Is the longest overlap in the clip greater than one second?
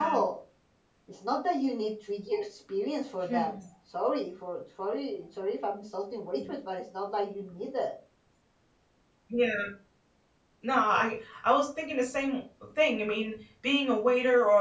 No

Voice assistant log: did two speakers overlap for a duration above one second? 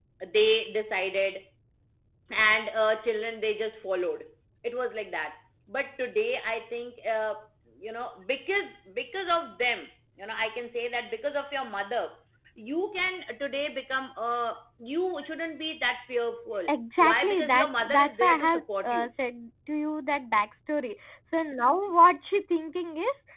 Yes, from 16.7 s

